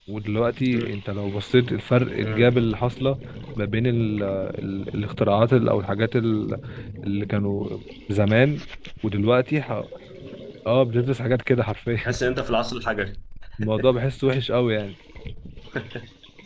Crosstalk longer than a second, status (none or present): none